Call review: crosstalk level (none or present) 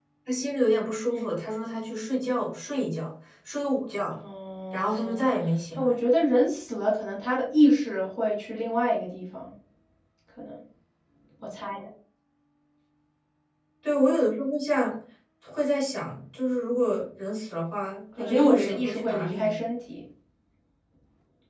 present